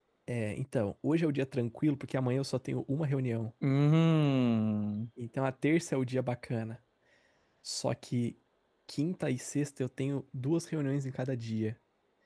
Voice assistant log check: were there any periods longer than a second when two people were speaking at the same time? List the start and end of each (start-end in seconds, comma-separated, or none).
none